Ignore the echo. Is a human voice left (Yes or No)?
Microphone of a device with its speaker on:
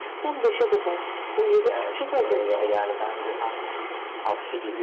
Yes